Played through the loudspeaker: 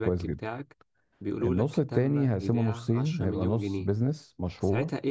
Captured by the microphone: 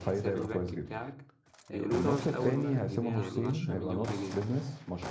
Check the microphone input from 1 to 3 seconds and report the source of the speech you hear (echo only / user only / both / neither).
both